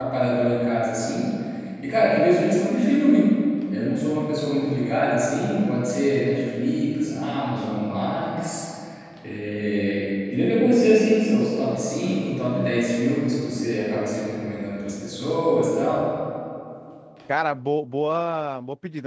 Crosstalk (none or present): none